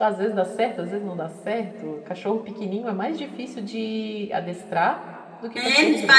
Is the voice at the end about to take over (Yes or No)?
Yes